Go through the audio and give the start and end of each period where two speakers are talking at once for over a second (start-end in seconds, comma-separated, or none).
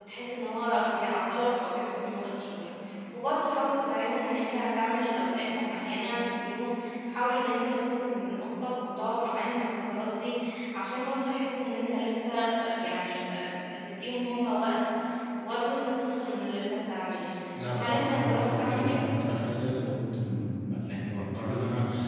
17.7-19.0